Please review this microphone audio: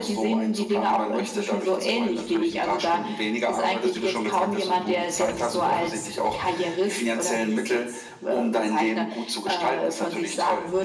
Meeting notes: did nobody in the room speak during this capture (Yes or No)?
Yes